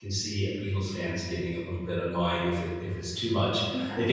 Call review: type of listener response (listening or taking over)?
listening